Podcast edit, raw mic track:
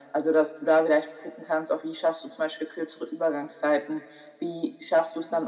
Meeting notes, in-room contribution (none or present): none